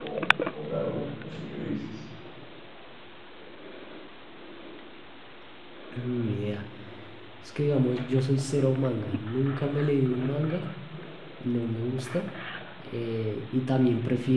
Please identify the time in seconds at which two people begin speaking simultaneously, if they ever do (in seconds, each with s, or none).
none